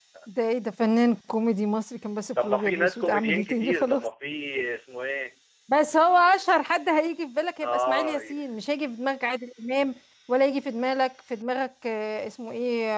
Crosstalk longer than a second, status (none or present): present